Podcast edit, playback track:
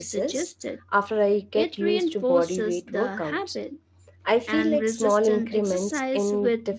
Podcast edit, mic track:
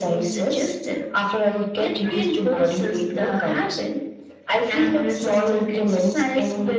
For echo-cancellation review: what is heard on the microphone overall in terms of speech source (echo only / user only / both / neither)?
echo only